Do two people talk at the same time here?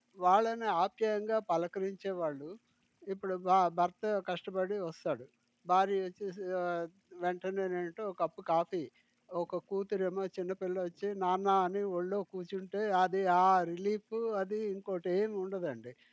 No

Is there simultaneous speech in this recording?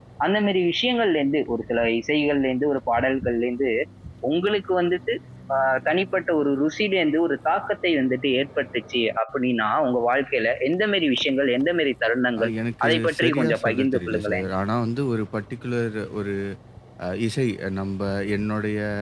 Yes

